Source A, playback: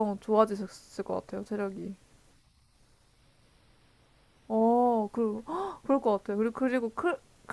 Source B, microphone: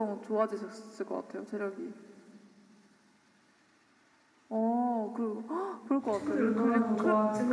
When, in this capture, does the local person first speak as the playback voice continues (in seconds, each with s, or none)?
6.1 s